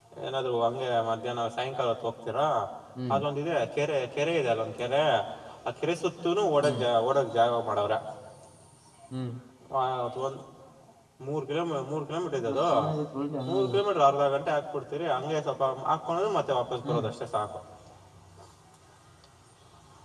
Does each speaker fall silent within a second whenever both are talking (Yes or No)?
Yes